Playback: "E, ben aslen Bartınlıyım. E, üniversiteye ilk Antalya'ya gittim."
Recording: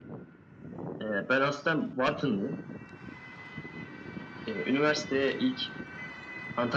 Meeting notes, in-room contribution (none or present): none